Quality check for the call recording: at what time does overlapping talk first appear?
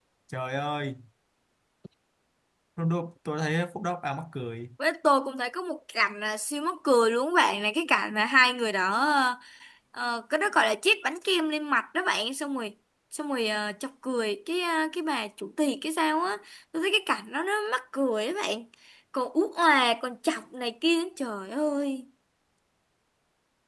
none

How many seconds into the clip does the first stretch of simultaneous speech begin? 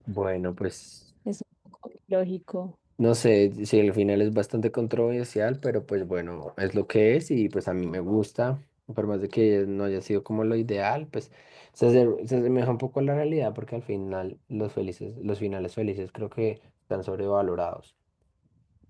none

